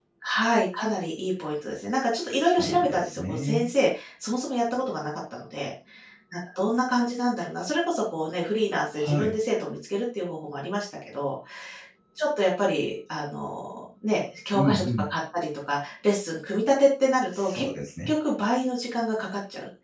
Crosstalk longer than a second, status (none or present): present